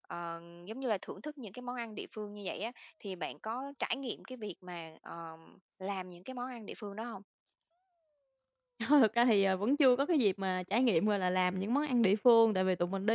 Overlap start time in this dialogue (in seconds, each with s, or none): none